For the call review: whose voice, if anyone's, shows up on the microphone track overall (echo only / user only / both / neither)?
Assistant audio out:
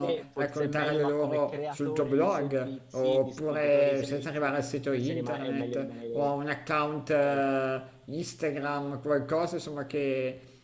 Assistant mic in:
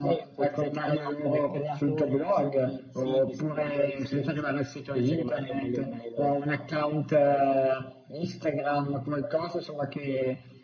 echo only